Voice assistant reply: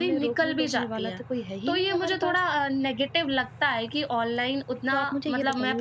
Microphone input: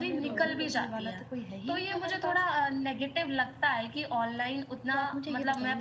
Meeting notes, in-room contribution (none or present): present